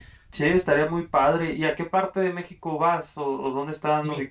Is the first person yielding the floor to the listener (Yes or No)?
Yes